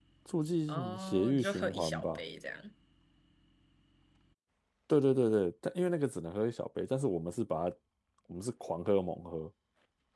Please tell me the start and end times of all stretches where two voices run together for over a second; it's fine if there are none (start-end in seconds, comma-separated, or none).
0.7-2.2